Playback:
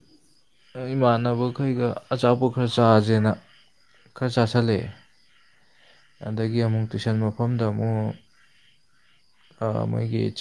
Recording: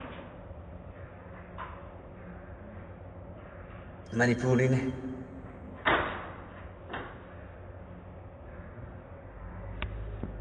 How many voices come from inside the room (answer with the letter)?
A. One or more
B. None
A